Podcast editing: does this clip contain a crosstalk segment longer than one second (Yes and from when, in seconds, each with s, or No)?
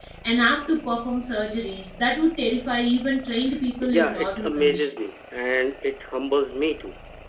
Yes, from 3.8 s